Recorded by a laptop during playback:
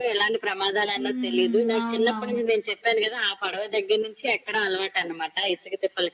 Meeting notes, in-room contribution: present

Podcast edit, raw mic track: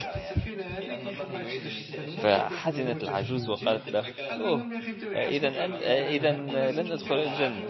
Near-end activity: present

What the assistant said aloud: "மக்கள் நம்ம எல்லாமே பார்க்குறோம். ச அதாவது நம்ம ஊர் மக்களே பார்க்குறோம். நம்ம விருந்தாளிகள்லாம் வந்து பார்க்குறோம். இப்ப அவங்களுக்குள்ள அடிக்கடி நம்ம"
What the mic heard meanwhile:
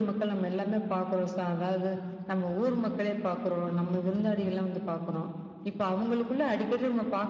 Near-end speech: none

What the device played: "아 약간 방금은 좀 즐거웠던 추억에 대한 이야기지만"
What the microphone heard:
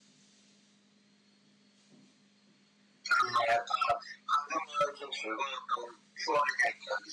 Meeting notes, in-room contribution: none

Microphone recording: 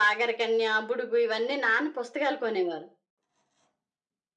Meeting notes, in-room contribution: none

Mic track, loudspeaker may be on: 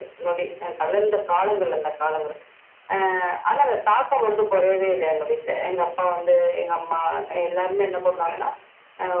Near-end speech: present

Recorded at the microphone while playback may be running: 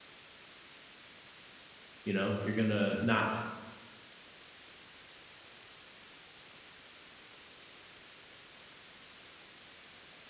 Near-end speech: present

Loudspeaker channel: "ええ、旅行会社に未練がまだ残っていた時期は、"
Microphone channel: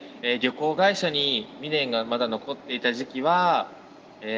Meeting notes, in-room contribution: none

